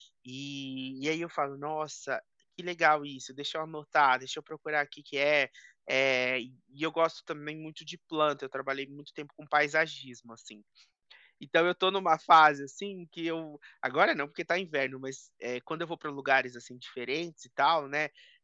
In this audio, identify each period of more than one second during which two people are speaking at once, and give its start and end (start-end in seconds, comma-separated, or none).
none